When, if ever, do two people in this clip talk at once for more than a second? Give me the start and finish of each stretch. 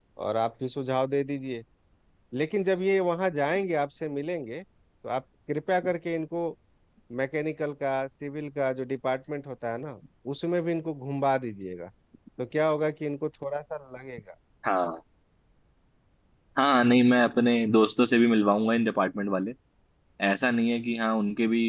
none

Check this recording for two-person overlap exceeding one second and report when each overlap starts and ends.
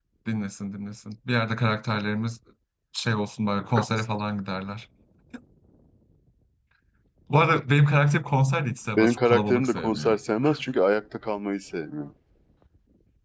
9.0-10.2

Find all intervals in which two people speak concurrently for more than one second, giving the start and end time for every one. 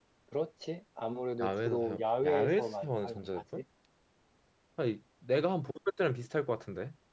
1.4-3.6

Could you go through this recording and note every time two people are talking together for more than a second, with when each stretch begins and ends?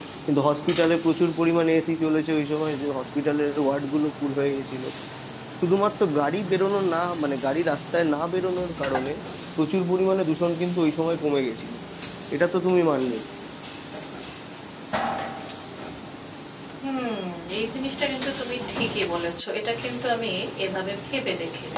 none

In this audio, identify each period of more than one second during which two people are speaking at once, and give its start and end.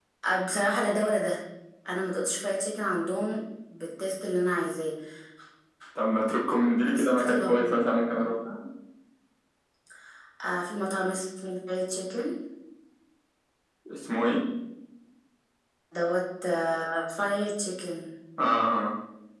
6.8-8.4

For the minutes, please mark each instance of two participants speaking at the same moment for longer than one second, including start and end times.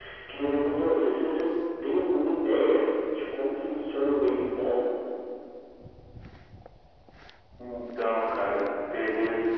none

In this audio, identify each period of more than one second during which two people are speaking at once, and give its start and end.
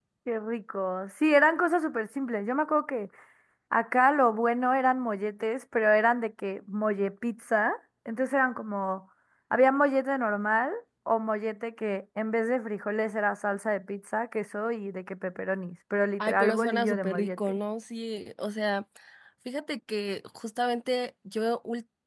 16.2-17.6

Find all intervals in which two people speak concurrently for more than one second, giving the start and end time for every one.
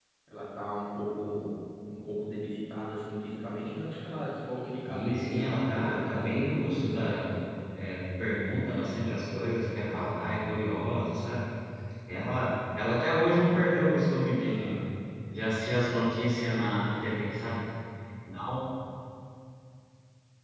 4.9-7.3

